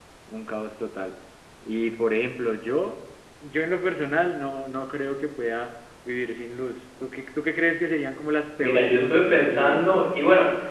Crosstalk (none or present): present